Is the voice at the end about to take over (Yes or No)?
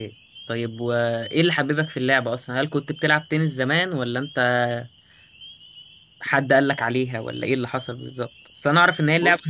No